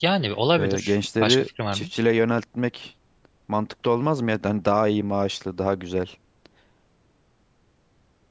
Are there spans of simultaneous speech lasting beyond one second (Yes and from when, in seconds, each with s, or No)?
Yes, from 0.6 s